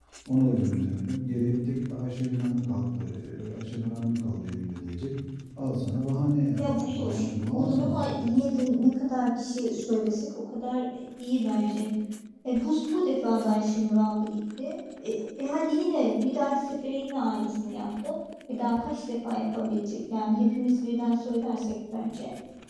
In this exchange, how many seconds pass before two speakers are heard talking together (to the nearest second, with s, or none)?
7 s